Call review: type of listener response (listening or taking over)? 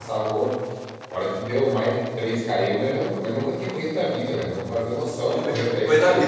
taking over